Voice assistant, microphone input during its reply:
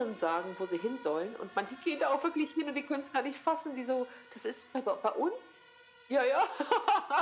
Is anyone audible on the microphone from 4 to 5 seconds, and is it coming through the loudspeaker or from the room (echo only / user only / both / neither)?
echo only